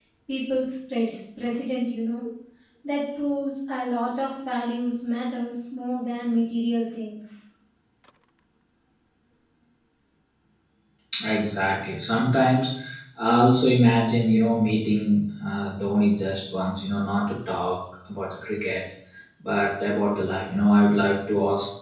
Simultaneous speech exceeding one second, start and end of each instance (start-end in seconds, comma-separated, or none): none